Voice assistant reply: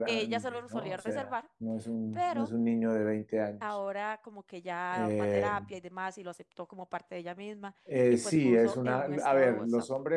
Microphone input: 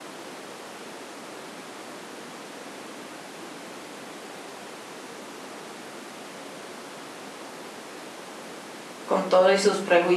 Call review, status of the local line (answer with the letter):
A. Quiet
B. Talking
B